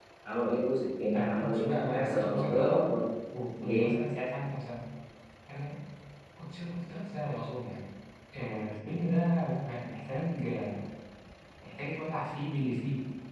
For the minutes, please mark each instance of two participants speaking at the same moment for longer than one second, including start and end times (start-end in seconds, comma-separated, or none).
1.1-2.9